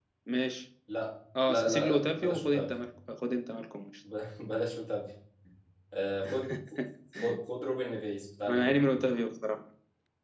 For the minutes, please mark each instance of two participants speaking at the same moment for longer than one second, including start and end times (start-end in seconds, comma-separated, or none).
1.5-2.8